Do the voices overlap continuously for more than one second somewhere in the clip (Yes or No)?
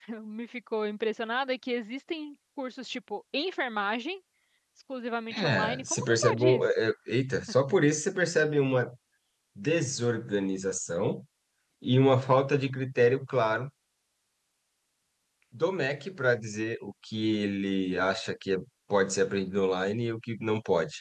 Yes